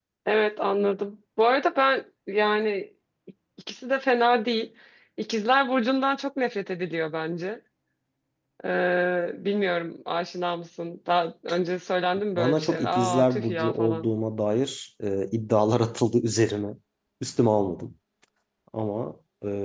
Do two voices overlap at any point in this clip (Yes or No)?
Yes